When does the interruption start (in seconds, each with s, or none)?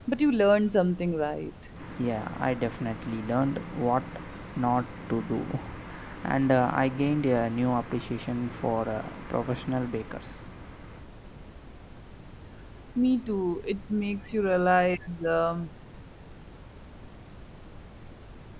none